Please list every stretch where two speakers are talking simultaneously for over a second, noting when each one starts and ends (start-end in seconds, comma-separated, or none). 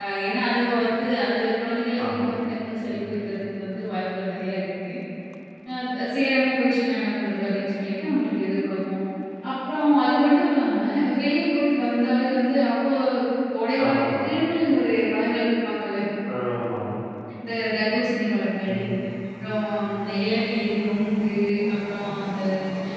none